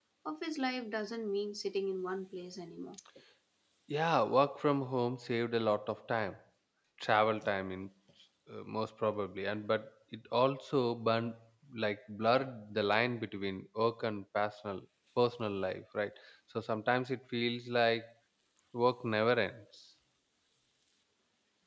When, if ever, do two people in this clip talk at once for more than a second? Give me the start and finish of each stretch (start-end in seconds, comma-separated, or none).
none